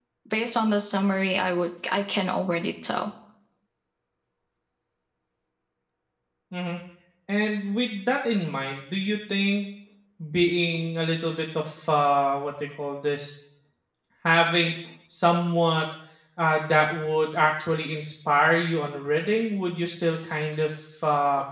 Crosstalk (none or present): none